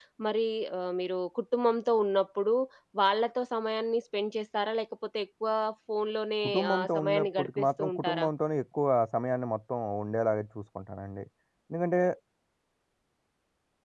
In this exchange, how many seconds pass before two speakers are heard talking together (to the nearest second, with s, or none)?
6 s